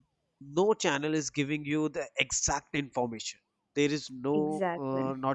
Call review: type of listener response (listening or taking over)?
listening